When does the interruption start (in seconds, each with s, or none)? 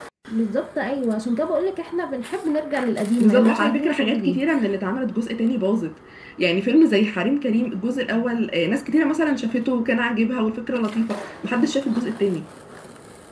3.2 s